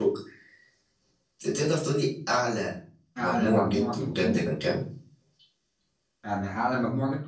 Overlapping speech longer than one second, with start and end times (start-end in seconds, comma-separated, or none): 3.2-4.4